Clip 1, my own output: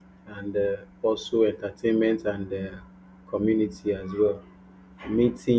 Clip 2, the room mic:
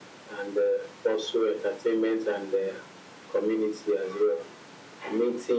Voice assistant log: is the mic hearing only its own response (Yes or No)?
Yes